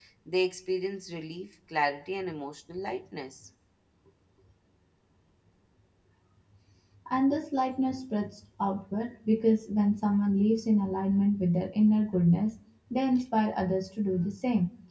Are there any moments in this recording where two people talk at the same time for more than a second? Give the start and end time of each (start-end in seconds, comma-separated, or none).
none